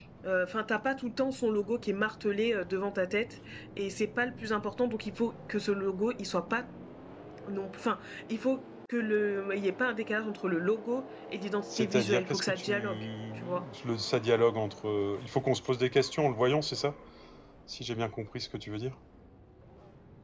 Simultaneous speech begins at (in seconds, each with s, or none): 11.7 s